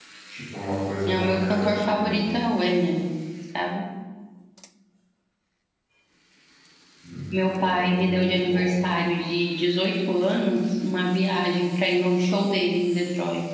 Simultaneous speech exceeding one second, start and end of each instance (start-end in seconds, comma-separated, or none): 1.1-2.5, 7.3-8.8